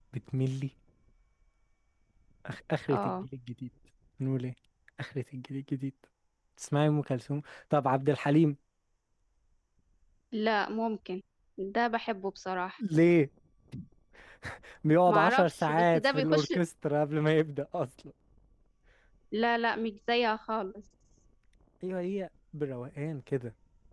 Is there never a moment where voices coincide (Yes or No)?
No